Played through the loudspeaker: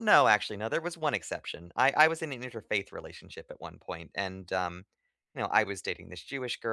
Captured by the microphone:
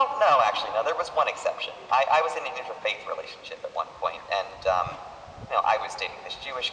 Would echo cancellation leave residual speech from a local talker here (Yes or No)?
No